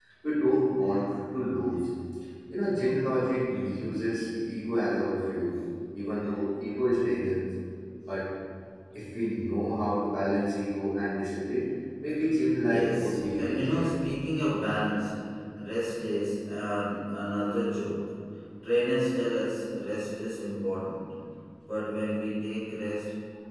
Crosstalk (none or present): present